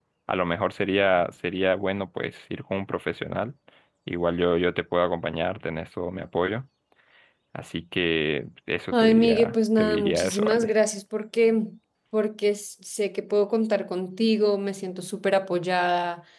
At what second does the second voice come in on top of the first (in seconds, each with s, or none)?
8.9 s